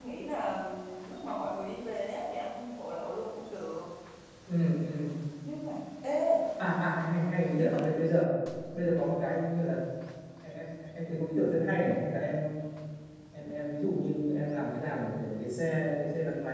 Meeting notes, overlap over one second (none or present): none